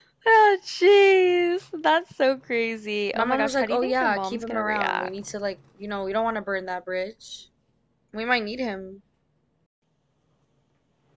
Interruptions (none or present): present